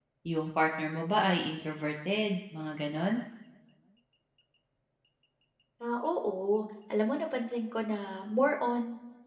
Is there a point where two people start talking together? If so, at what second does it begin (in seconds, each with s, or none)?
none